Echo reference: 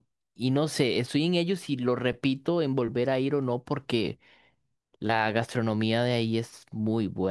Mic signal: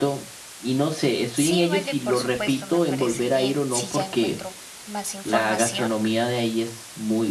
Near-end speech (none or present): present